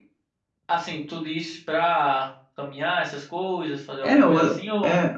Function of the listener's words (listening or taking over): taking over